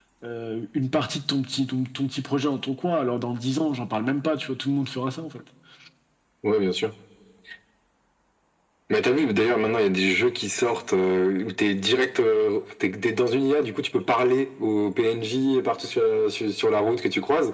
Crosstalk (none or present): none